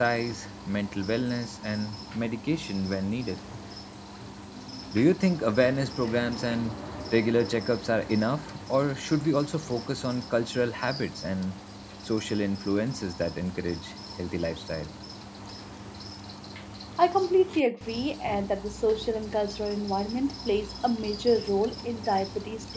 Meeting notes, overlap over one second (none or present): none